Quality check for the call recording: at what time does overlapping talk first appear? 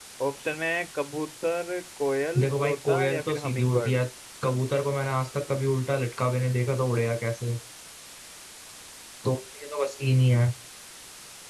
2.4 s

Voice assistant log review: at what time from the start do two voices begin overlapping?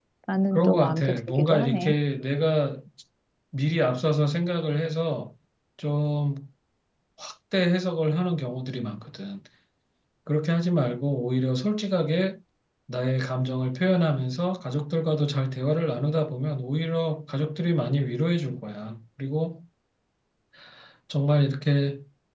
0.5 s

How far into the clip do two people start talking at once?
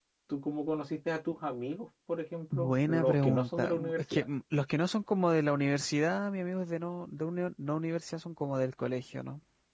2.5 s

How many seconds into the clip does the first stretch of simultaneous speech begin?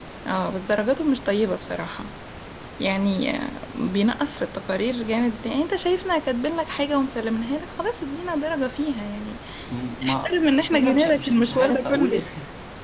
10.1 s

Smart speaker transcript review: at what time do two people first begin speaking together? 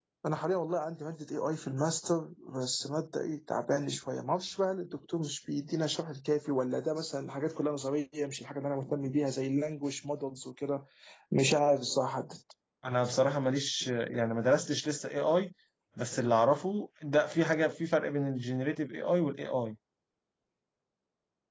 none

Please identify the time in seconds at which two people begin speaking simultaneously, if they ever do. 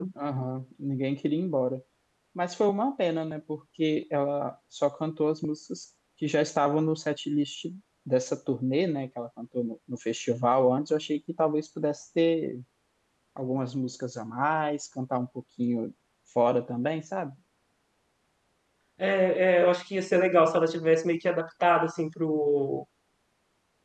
none

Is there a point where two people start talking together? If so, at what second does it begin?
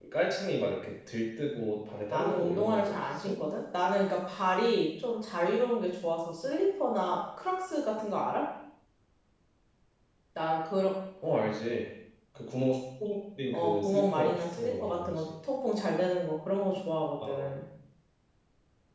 2.1 s

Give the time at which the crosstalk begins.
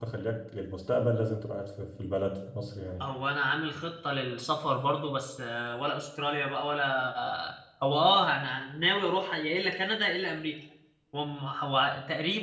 none

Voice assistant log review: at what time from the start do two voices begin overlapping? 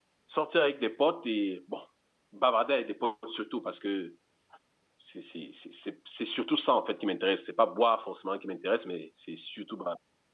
none

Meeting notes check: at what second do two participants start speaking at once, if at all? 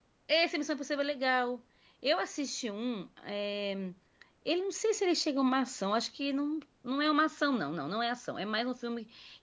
none

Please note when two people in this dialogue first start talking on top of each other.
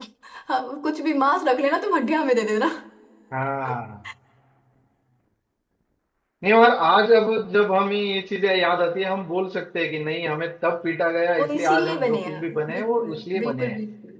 11.4 s

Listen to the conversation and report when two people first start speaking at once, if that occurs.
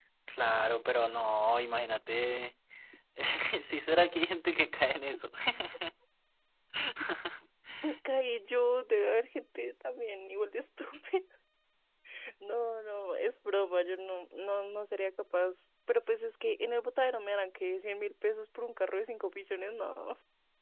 none

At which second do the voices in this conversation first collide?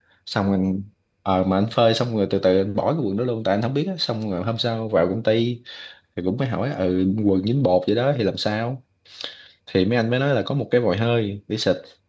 none

